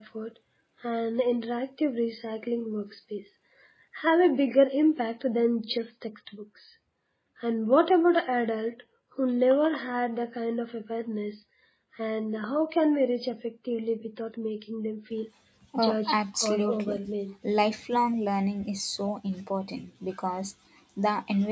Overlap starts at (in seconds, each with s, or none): 15.8 s